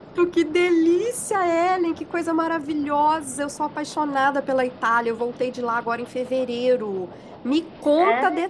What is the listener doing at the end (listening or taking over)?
listening